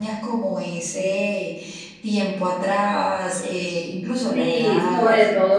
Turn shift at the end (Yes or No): Yes